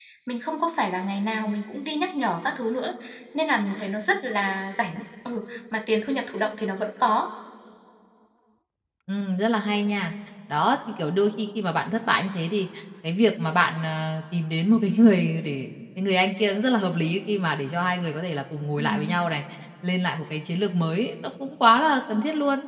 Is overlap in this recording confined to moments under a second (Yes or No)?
Yes